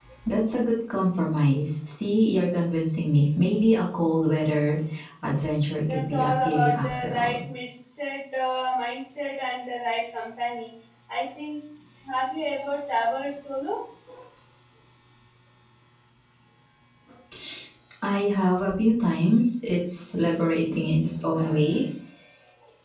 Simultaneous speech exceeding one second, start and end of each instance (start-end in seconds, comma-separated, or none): 5.9-7.4